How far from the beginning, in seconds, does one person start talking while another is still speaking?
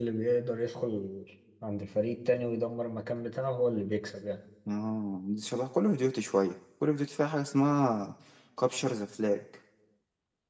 none

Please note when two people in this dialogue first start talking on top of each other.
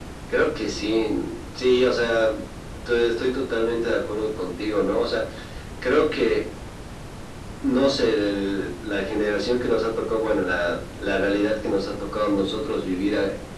none

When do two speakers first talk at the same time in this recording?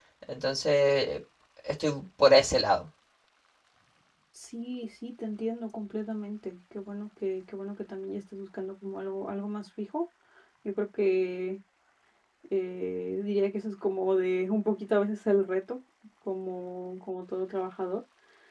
none

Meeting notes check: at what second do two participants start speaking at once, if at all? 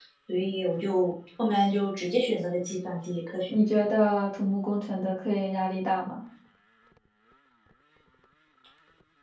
none

